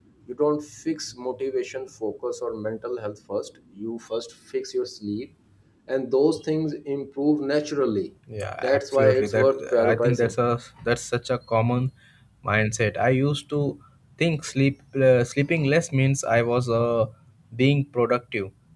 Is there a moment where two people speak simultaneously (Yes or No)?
Yes